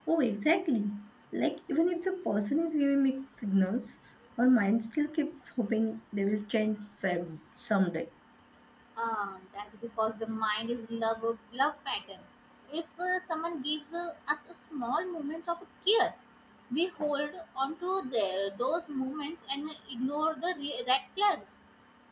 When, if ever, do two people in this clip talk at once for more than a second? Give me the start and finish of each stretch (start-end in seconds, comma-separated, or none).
none